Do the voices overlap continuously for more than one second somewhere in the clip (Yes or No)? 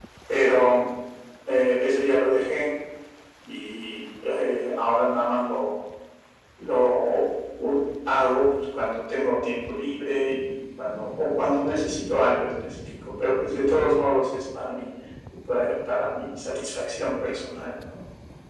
No